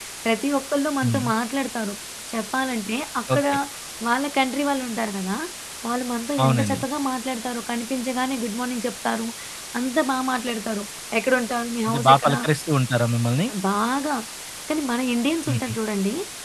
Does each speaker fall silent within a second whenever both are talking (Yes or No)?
Yes